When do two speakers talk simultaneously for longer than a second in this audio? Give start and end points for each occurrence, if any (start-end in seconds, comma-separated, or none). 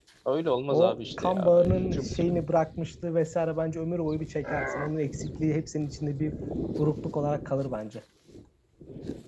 0.7-2.2